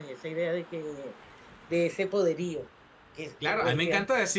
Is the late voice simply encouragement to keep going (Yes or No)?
No